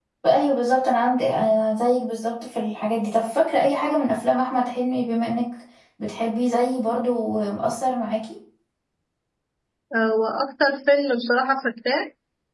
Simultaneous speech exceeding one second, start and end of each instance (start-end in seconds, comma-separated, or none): none